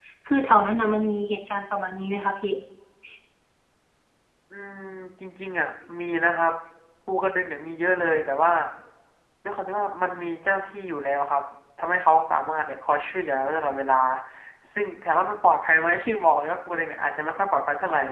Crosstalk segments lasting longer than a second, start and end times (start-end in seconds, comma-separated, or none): none